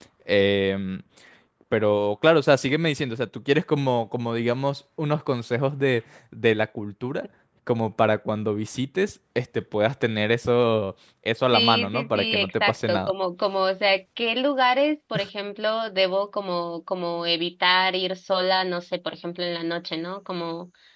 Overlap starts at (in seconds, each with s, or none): 11.5 s